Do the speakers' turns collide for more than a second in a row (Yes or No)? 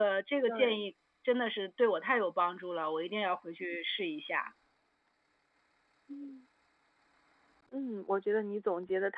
No